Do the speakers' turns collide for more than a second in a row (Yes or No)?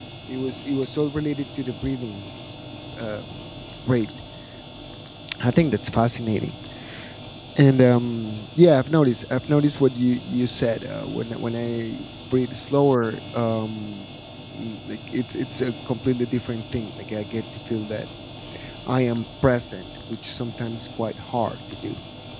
No